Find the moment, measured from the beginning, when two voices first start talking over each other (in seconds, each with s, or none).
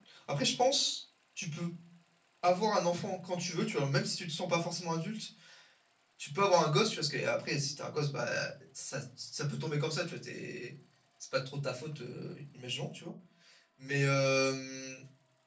none